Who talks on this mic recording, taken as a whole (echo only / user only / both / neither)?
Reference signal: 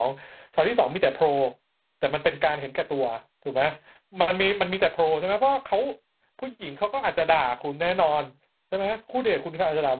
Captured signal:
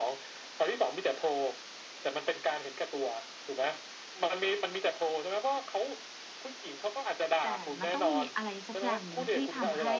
both